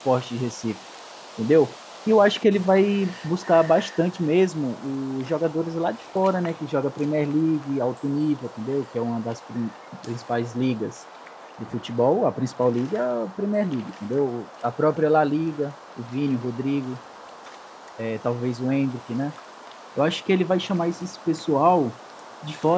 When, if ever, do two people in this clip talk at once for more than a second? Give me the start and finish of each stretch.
none

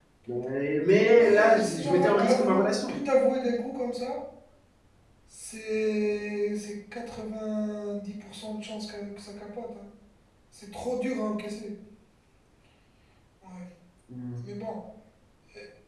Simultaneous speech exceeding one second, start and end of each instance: 1.1-2.9

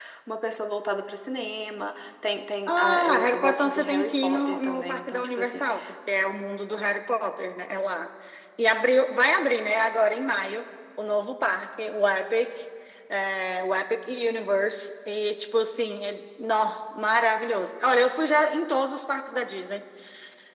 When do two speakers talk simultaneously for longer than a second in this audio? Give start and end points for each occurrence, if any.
2.7-5.7

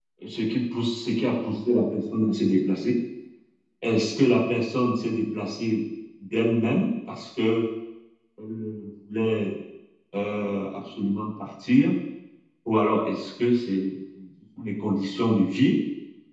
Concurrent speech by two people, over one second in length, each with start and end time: none

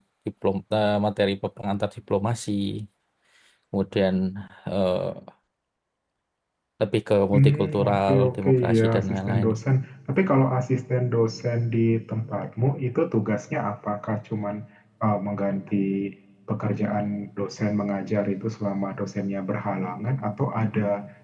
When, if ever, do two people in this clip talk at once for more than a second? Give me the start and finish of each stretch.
7.3-9.5

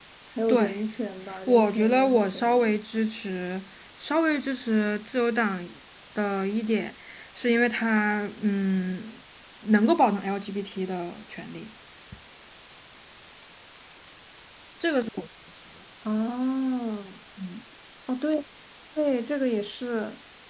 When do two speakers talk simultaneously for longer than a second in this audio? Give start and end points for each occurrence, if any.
1.5-2.7

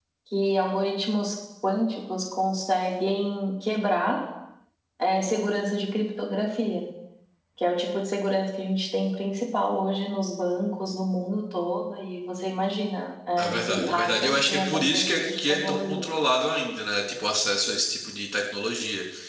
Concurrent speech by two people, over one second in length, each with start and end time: 13.4-16.1

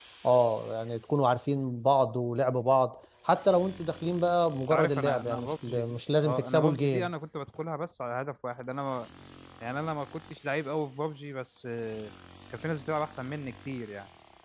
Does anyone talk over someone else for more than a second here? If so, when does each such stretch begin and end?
4.7-7.1

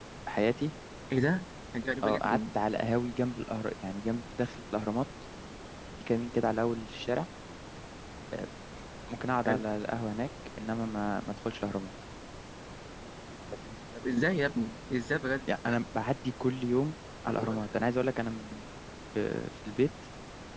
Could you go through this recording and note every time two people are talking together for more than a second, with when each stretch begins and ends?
none

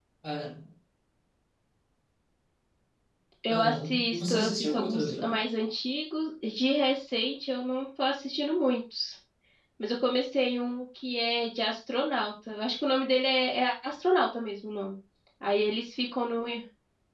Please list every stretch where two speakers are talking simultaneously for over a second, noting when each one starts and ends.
3.5-5.4

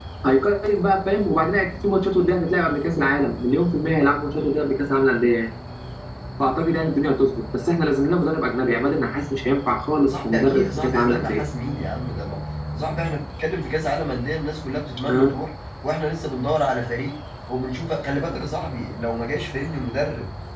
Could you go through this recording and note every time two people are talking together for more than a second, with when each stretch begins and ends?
10.1-11.4

